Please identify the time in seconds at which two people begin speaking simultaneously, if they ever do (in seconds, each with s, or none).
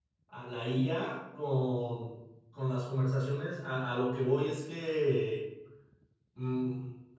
none